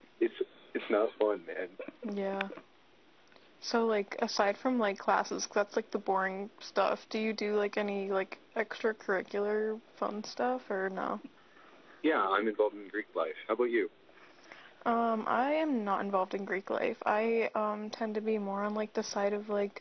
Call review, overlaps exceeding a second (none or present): none